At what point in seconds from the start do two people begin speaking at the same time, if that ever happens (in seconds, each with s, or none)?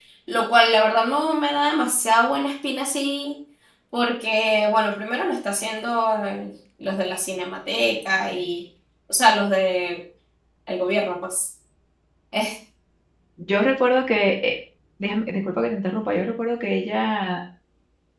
none